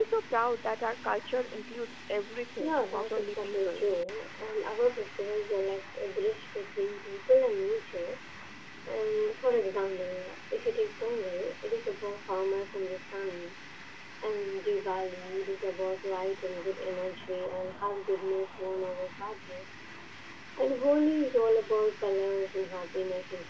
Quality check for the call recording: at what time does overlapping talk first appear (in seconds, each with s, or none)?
2.6 s